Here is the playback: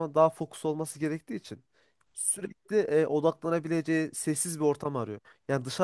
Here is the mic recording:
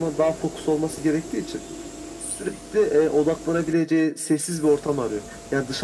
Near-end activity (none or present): none